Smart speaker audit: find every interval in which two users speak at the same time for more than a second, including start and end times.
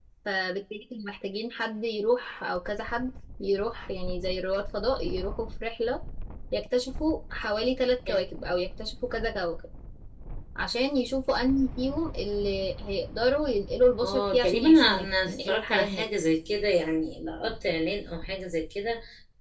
14.0-16.0

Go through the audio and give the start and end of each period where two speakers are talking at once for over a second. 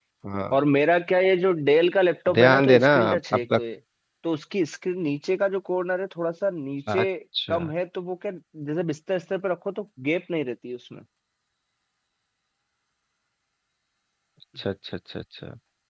2.3-3.6

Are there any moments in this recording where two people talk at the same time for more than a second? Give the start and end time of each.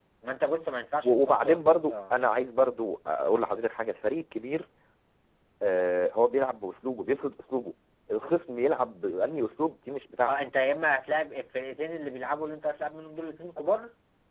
1.0-2.2

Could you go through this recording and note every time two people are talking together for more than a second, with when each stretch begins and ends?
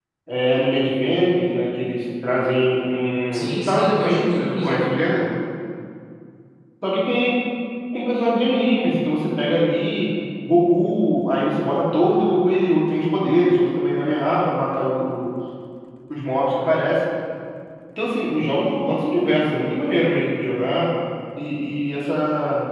3.3-4.9

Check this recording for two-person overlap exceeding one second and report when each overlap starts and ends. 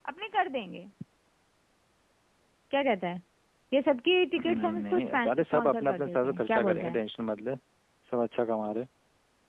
4.5-7.0

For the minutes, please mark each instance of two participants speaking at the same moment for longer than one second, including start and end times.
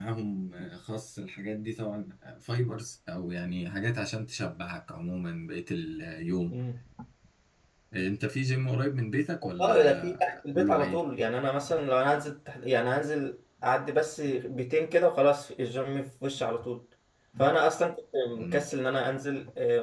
9.6-11.0

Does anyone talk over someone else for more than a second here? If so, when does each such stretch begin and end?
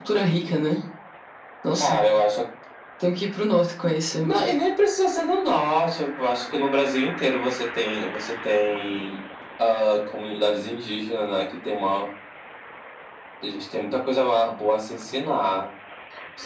none

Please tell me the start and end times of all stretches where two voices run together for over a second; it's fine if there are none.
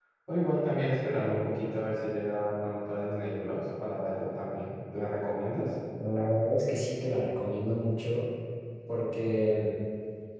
none

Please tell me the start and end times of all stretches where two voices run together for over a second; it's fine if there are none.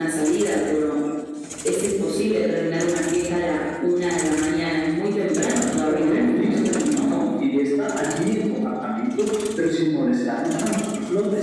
5.9-7.3

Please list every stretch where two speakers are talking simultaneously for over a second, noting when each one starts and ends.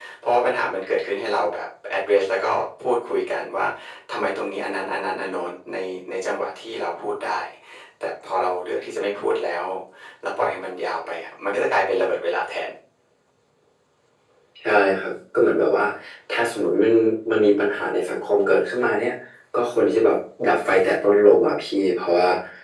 none

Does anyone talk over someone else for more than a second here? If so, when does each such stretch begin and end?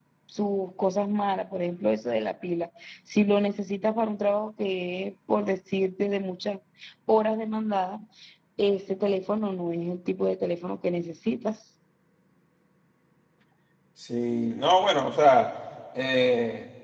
none

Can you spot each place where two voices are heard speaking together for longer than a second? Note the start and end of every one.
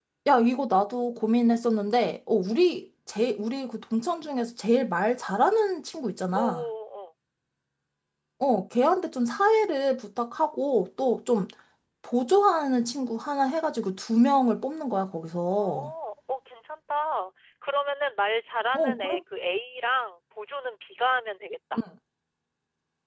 none

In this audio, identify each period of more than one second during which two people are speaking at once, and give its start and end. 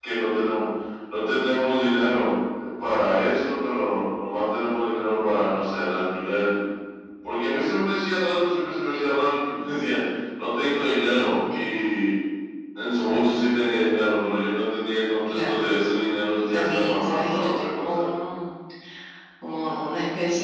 16.5-18.1

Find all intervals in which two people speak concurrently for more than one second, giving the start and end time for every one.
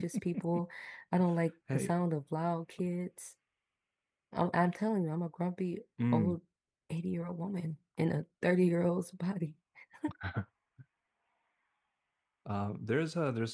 none

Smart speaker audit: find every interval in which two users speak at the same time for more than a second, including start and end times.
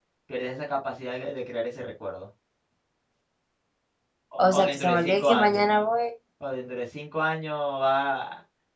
4.4-5.6

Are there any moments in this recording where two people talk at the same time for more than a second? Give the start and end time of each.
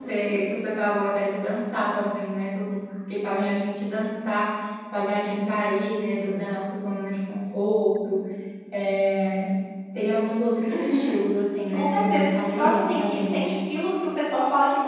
11.7-13.6

